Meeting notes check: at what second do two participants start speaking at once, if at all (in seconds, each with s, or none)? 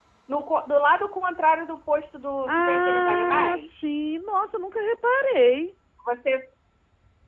2.5 s